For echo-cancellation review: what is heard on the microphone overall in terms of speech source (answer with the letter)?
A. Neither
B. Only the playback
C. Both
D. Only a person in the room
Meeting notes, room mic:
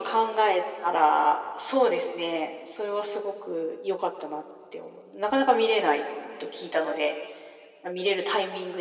B